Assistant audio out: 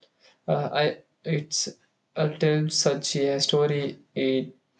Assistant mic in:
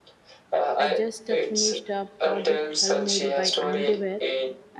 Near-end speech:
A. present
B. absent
A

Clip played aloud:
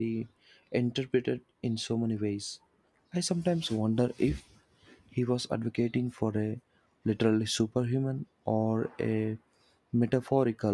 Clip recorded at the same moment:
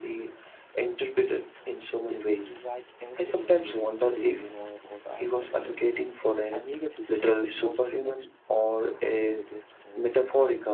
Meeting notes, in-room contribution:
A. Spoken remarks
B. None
A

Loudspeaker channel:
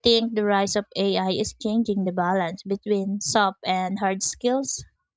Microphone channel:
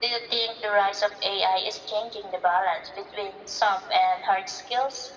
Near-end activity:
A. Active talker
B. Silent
B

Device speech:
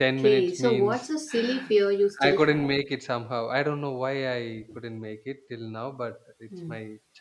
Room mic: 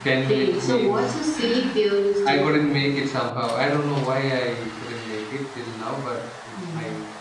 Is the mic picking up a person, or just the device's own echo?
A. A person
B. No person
B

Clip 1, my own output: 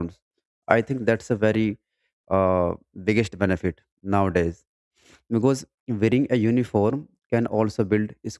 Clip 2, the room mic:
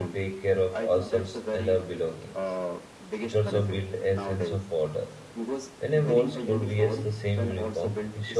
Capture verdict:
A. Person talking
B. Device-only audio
A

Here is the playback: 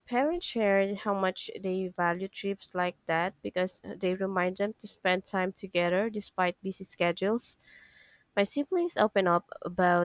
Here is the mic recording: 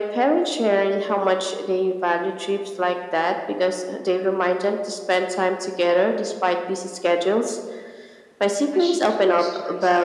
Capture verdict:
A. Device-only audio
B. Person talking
B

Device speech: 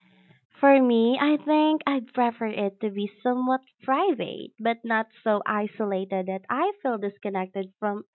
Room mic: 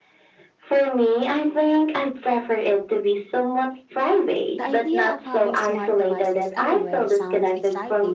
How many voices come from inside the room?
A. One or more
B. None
A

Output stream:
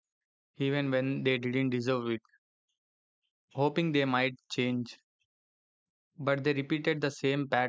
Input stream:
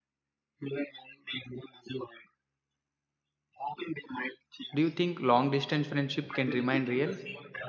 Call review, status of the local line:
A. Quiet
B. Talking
B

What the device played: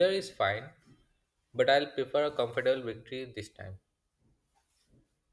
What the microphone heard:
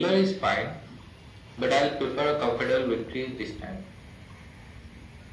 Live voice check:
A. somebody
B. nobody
B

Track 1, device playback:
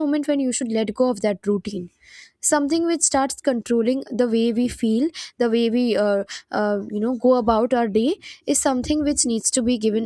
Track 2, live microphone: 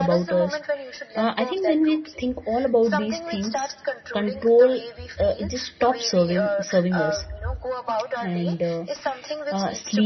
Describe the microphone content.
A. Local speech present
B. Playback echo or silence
A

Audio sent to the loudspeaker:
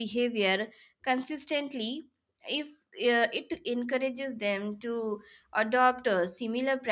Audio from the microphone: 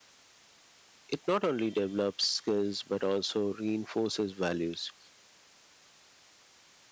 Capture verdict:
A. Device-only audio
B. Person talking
B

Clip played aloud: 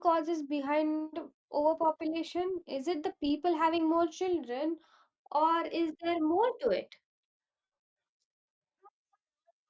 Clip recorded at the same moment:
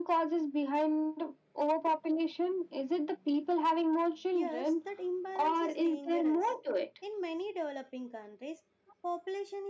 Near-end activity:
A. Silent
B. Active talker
B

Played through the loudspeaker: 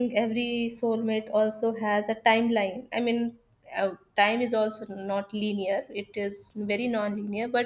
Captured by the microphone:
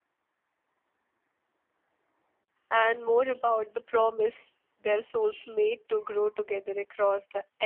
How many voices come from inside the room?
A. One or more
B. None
A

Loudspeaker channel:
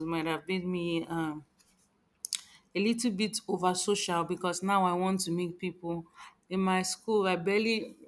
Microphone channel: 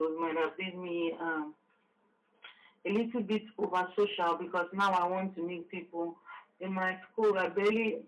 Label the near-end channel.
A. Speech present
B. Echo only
B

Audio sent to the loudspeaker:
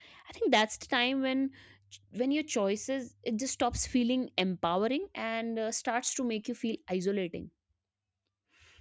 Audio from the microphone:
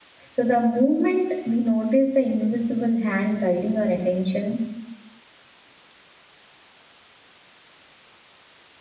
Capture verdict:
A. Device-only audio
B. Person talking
B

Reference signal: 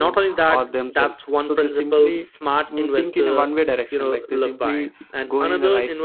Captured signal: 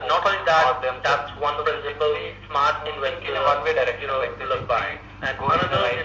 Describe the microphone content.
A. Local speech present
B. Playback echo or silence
B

